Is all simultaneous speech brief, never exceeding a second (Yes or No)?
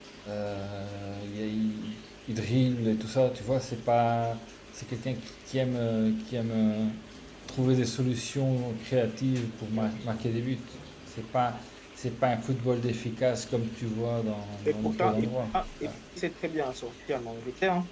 No